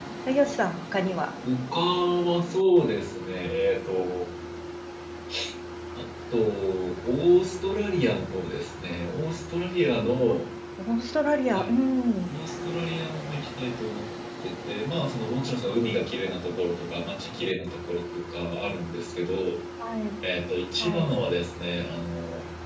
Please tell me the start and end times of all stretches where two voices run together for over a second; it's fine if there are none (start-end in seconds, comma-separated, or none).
none